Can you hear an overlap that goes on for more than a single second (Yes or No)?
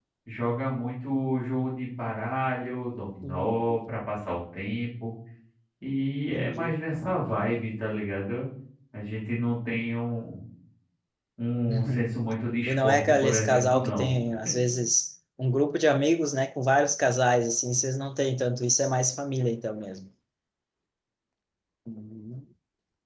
Yes